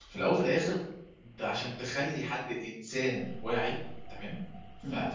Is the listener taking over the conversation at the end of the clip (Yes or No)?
No